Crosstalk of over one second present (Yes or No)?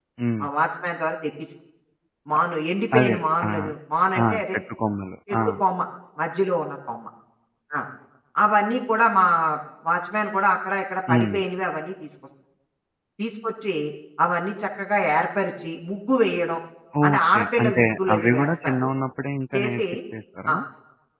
Yes